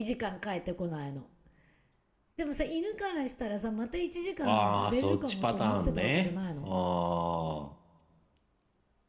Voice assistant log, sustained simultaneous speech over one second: present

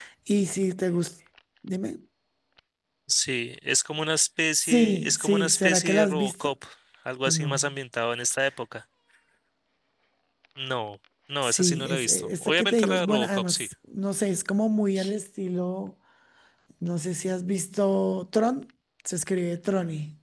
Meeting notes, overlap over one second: present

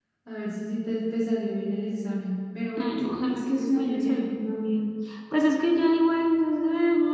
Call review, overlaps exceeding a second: present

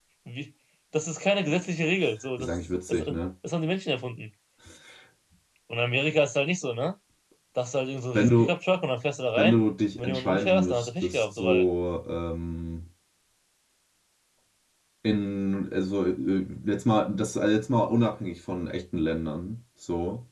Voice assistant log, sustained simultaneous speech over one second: present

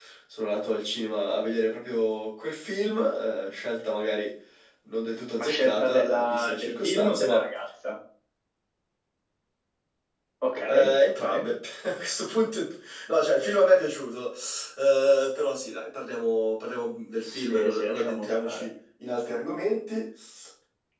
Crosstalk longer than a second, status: present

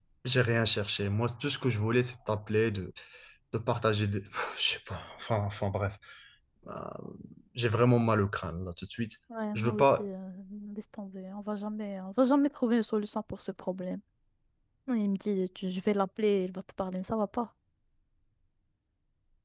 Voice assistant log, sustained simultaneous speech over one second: none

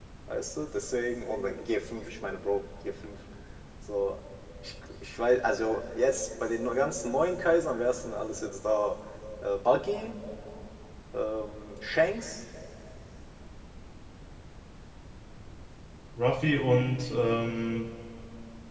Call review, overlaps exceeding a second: none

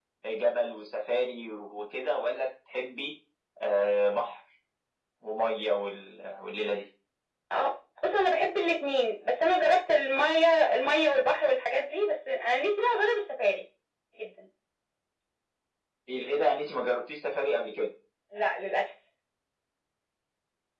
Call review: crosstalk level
none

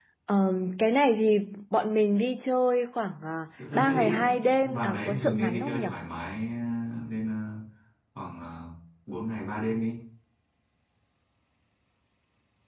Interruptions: present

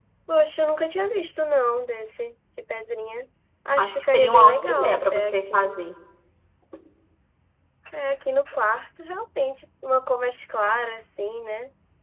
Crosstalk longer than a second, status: present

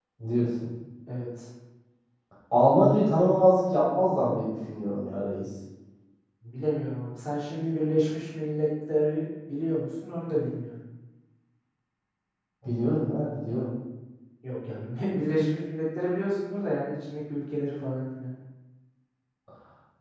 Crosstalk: none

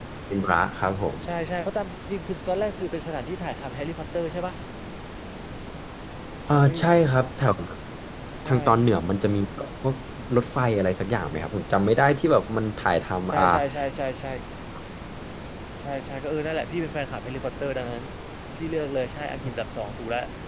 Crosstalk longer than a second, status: none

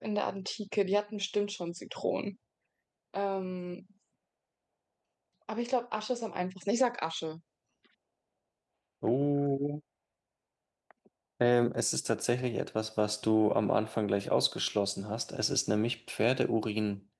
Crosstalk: none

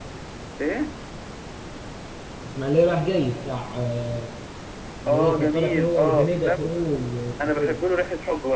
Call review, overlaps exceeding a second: present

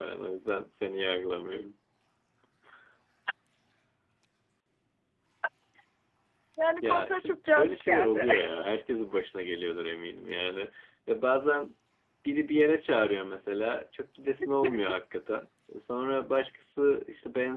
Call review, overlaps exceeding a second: present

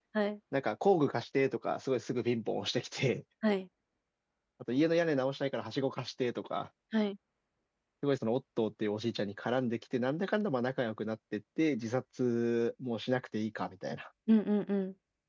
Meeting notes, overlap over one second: none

